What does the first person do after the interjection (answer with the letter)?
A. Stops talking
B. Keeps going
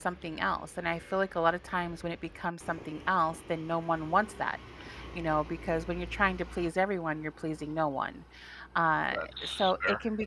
B